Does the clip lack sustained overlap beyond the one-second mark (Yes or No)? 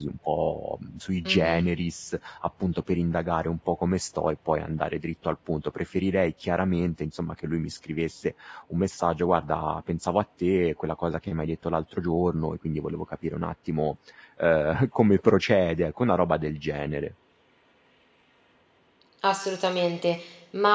Yes